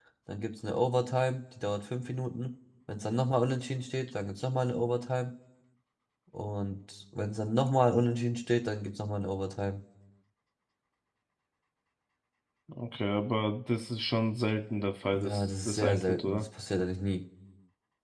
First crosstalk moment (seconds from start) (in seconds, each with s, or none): 15.1 s